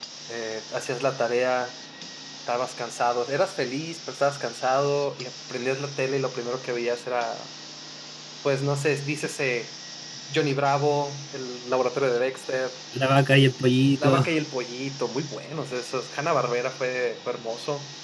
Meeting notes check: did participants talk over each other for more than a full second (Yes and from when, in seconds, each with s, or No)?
No